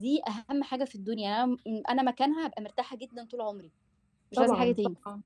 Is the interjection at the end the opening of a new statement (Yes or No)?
Yes